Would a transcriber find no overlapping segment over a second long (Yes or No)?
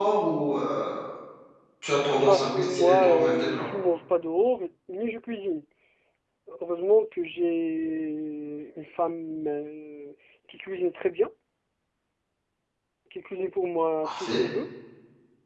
No